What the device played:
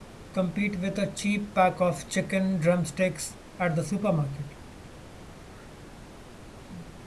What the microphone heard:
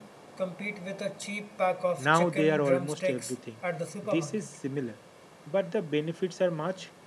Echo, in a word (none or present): present